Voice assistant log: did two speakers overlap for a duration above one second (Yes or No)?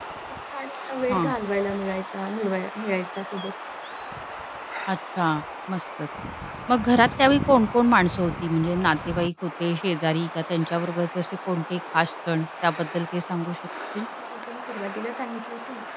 No